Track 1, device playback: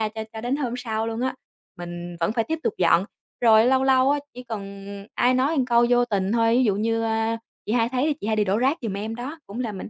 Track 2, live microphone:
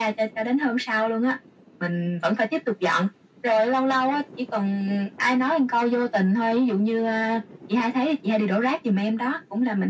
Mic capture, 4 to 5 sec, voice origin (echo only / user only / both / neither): echo only